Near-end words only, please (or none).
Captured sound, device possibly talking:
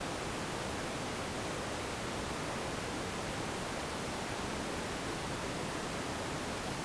none